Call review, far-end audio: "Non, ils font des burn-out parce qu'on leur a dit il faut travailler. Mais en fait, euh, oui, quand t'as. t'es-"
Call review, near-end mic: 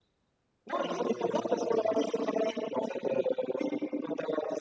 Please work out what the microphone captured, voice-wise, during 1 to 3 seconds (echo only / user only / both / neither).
both